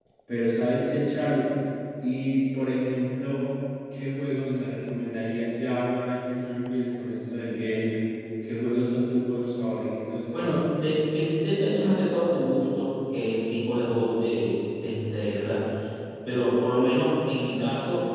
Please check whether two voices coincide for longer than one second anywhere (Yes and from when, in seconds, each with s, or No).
No